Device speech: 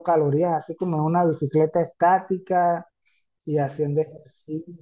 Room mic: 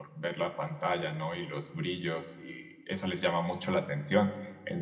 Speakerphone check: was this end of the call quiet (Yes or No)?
No